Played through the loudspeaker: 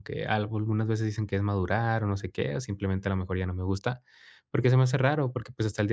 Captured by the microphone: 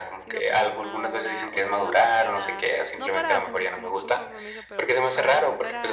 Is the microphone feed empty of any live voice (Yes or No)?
No